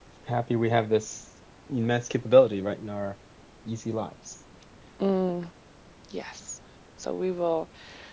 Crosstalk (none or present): none